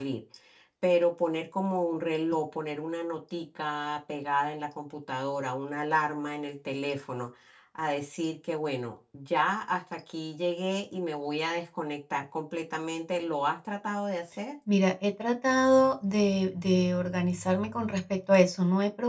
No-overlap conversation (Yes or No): Yes